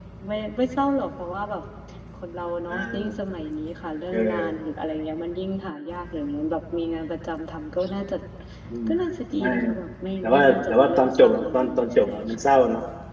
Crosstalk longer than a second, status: present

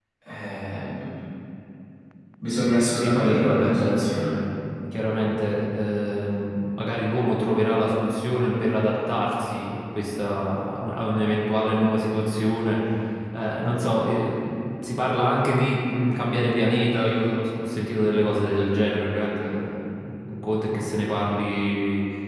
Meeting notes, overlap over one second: present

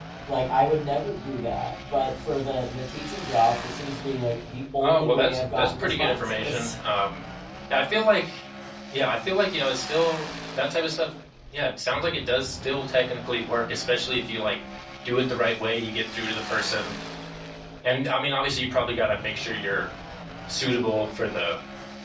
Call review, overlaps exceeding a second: present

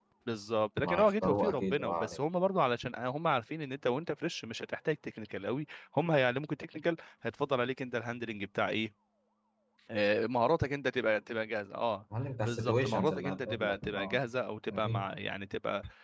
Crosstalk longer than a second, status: present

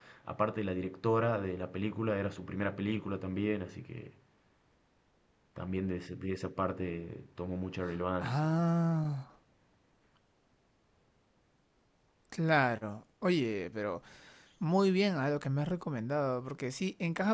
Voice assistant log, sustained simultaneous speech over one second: none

